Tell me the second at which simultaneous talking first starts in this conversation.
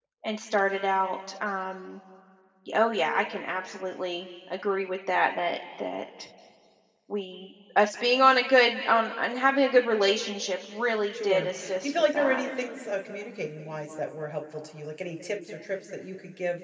11.1 s

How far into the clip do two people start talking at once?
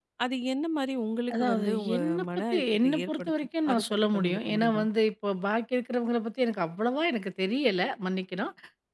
1.3 s

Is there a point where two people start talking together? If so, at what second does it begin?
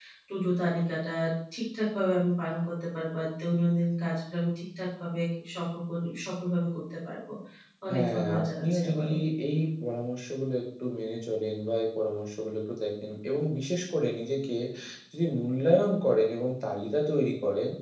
7.9 s

